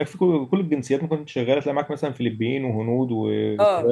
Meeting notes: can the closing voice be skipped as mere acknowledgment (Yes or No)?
No